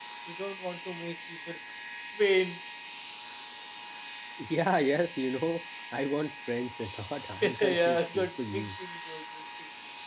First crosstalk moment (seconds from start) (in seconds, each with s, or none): 7.4 s